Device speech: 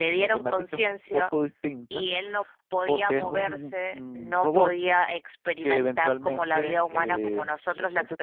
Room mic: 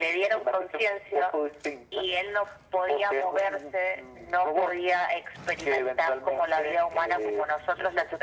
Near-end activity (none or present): none